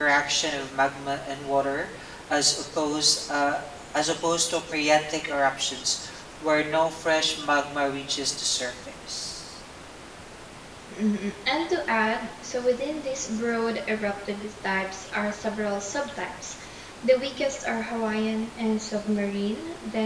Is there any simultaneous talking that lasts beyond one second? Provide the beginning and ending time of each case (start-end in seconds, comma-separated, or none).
none